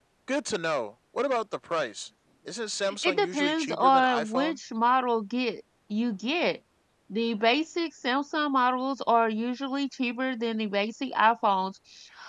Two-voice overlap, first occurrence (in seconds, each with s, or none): 3.0 s